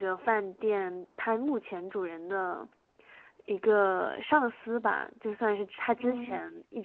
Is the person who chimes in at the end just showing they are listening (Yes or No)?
Yes